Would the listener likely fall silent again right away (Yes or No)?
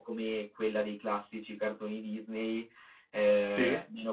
Yes